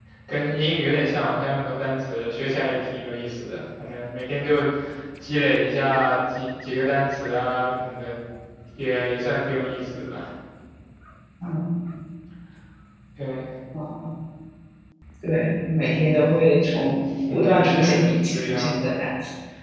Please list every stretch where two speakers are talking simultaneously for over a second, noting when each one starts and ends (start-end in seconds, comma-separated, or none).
17.3-18.8